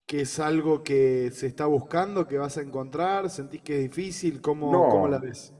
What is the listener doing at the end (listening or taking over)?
taking over